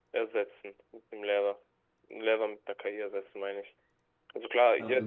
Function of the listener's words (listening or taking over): taking over